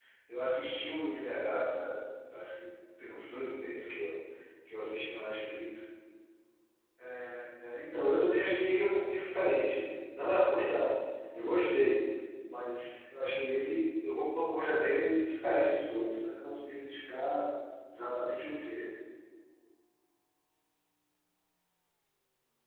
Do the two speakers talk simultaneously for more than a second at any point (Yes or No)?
No